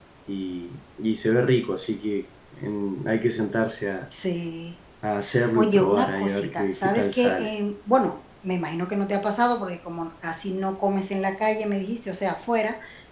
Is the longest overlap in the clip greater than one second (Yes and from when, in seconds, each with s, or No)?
Yes, from 5.5 s